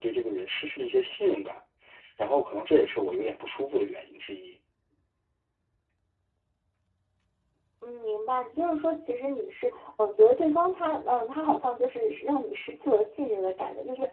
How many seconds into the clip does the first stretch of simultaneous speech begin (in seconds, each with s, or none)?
none